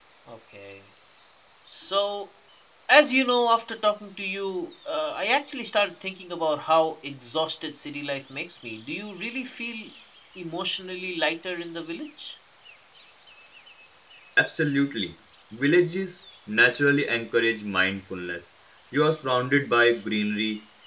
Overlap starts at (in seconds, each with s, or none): none